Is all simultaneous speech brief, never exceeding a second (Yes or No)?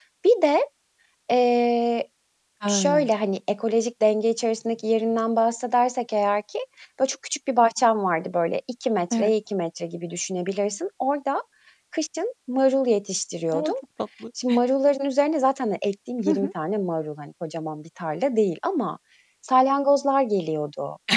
Yes